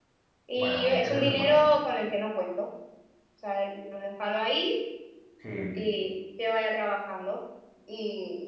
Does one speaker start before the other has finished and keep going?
Yes, from 0.6 s

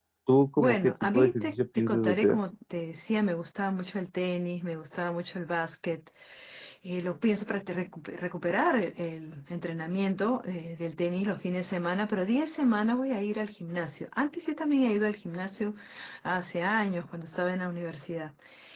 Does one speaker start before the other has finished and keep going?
Yes, from 0.6 s

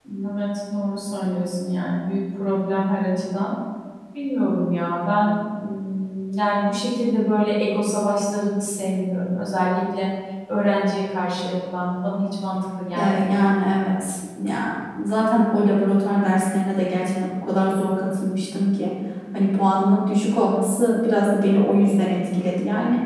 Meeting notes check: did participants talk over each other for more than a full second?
No

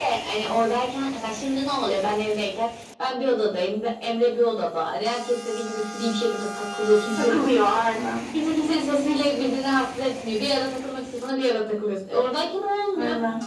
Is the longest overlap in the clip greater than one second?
No

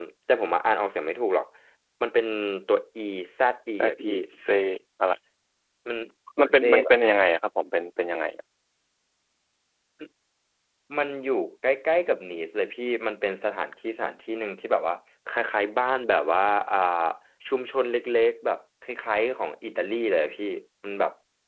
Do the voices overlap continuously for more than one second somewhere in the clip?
No

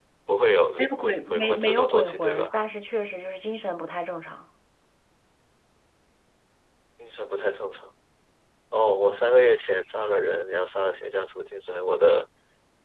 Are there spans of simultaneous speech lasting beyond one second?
Yes, from 0.8 s

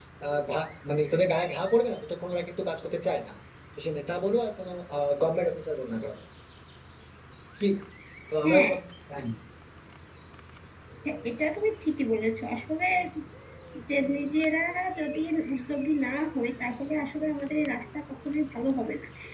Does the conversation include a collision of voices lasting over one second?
No

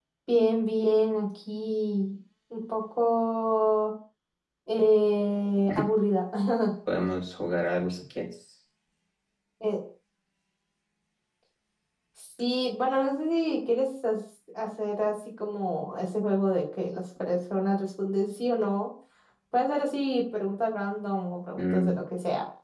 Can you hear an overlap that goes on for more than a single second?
No

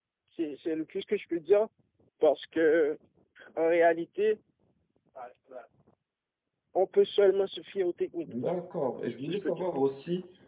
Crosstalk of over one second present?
No

